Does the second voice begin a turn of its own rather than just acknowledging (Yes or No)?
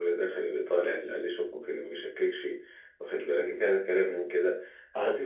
No